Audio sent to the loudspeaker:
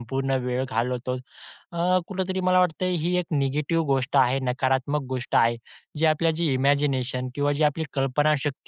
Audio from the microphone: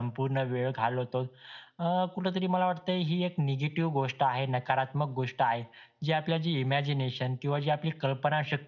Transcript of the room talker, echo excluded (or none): none